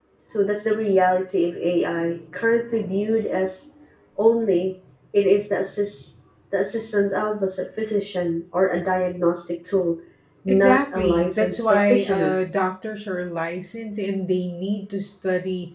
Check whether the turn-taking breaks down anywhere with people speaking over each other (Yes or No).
Yes